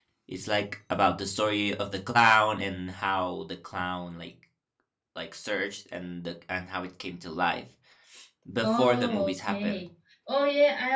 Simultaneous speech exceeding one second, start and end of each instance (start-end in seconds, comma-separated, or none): 8.6-9.8